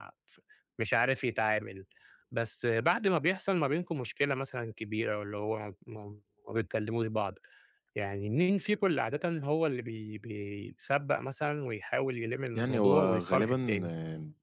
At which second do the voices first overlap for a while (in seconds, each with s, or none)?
12.6 s